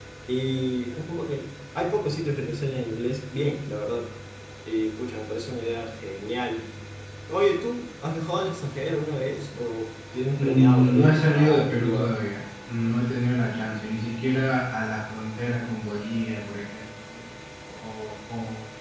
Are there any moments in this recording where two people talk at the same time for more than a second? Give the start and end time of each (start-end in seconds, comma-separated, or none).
10.4-12.2